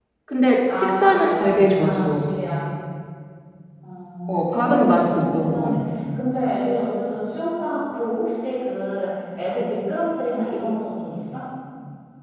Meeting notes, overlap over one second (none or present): present